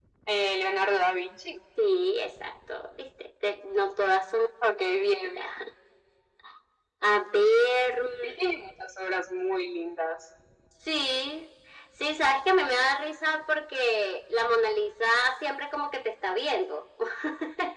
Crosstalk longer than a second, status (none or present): none